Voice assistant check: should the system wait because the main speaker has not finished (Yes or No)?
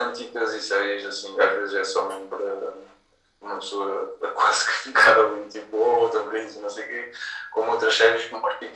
Yes